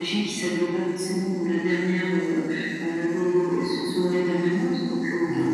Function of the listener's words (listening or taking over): listening